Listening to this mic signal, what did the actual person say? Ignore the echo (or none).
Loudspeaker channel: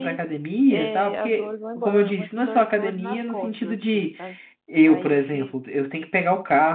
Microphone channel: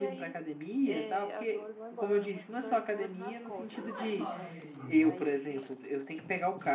Então não é só a academia, né?